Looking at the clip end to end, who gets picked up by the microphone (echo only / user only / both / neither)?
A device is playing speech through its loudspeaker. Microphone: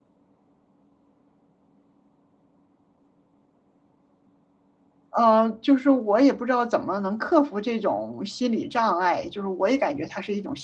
user only